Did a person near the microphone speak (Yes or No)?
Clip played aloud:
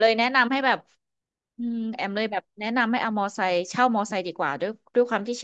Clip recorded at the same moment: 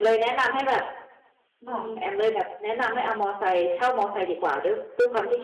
Yes